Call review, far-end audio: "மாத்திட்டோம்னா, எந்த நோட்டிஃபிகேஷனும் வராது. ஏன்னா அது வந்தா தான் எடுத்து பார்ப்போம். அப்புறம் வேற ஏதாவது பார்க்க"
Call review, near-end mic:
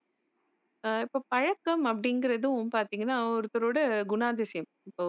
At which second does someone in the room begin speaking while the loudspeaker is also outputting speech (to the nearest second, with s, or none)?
1 s